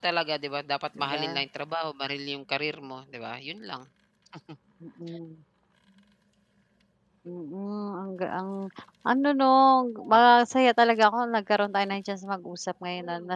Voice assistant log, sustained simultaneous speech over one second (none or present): none